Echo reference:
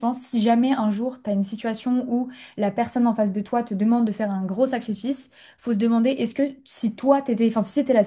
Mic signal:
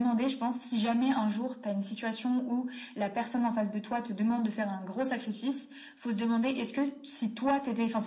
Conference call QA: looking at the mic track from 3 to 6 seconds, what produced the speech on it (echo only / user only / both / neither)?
echo only